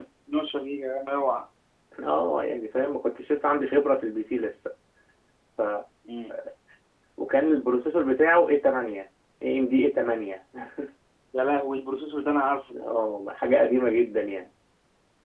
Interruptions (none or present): none